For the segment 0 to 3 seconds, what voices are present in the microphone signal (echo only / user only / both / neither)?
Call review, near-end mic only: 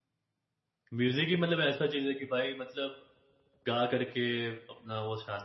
user only